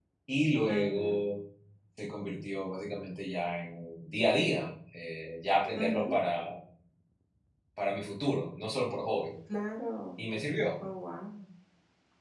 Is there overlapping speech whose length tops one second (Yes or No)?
No